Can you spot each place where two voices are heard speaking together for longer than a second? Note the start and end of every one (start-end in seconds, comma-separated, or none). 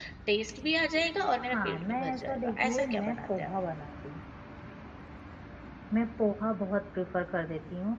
1.5-3.5